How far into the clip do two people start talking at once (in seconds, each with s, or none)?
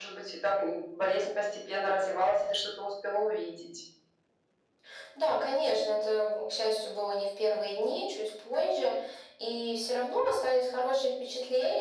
none